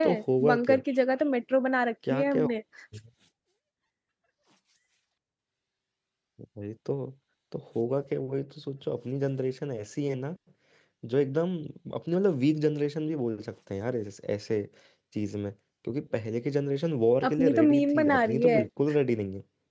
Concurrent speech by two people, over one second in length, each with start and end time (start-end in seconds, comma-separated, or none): 17.3-18.6